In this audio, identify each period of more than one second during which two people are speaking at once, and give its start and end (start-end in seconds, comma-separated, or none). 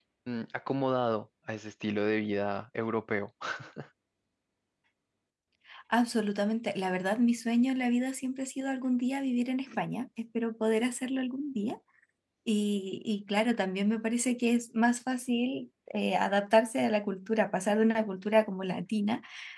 none